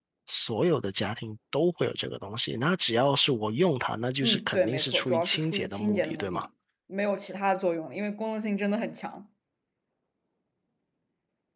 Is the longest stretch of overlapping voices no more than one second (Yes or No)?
No